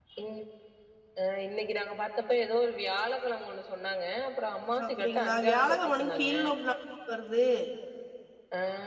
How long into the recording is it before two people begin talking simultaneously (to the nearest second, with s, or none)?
5 s